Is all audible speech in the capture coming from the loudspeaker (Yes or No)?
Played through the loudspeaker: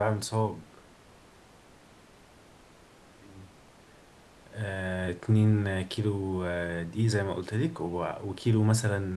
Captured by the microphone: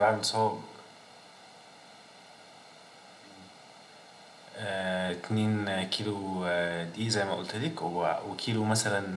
Yes